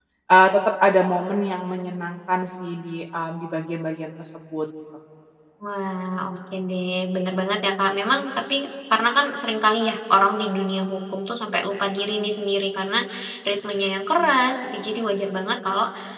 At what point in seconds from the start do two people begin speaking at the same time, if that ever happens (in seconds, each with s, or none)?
none